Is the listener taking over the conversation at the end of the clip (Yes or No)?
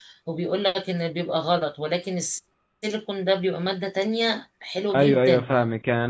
Yes